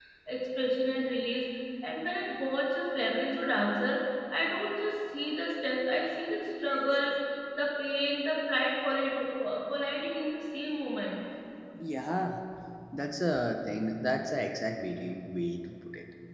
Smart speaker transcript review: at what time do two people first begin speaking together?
none

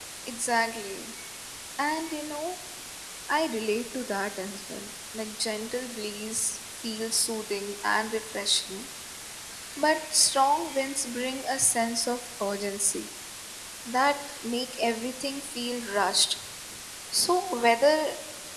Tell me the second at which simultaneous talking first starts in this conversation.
none

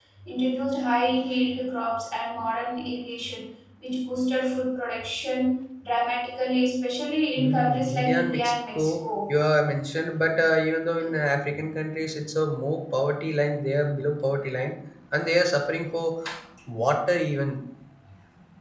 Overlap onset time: 7.4 s

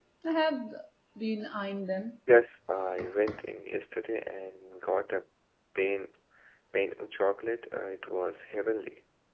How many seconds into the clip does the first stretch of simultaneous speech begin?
none

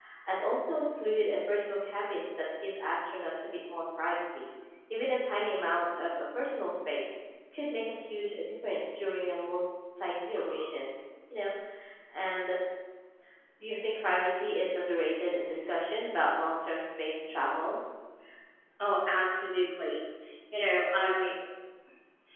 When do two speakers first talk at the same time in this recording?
none

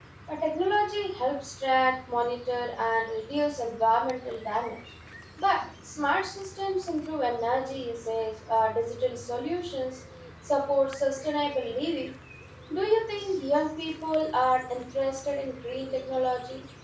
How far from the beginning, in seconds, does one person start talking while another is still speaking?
none

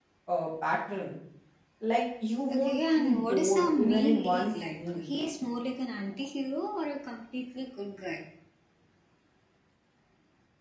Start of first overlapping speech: 2.5 s

